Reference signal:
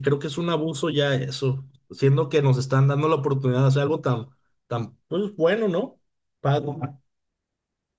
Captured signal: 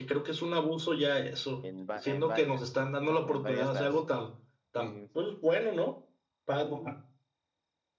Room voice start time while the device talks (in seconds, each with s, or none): 1.6 s